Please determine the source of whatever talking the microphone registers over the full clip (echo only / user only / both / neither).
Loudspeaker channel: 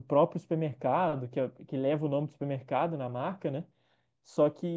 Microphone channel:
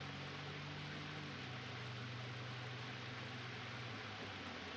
neither